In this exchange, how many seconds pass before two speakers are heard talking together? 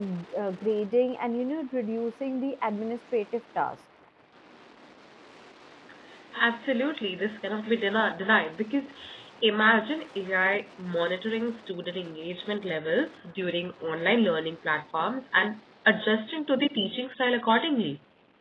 none

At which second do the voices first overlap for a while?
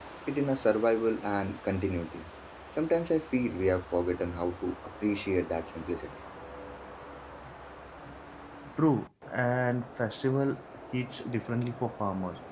none

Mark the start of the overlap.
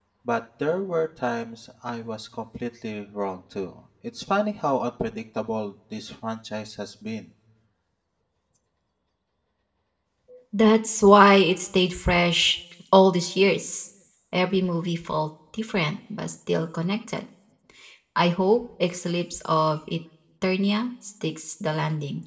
none

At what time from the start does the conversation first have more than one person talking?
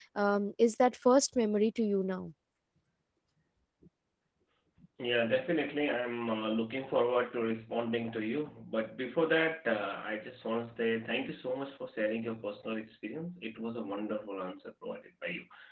none

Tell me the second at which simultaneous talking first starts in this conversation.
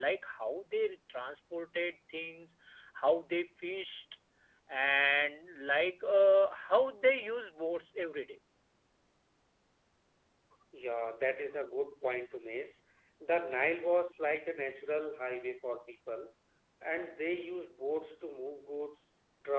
none

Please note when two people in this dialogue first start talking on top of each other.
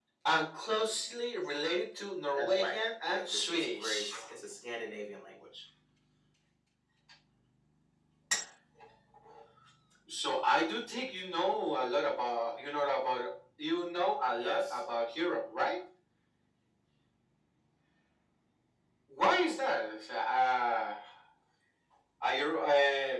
2 s

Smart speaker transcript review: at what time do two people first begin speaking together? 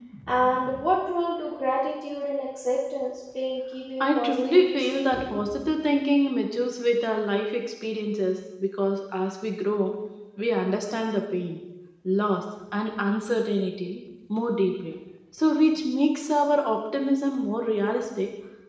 4 s

